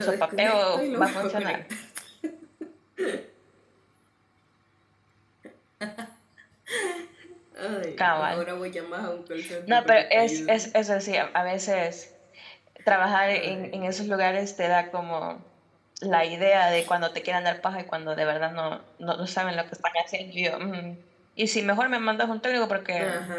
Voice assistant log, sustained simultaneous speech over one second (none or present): present